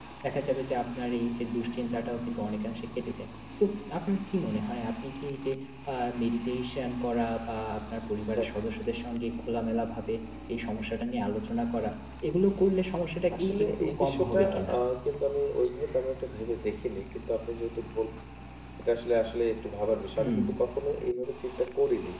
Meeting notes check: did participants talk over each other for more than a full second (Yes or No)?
Yes